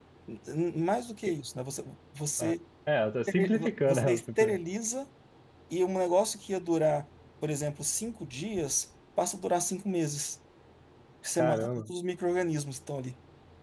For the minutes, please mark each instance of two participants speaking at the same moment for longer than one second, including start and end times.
3.3-4.6

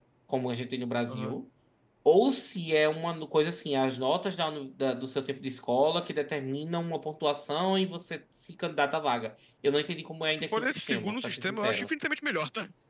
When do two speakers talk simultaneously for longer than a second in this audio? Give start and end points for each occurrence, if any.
10.5-11.9

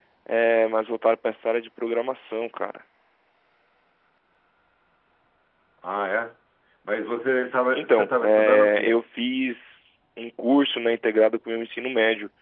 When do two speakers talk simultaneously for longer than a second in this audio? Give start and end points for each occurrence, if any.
7.7-9.0

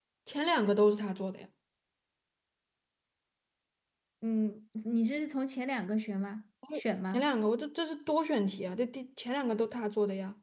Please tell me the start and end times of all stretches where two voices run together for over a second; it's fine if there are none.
none

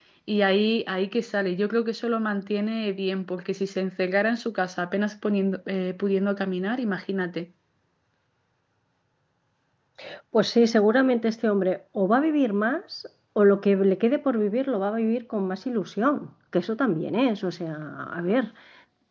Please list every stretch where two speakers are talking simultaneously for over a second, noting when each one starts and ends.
none

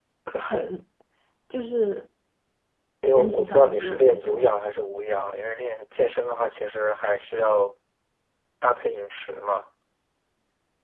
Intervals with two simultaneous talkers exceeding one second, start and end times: 3.2-4.4

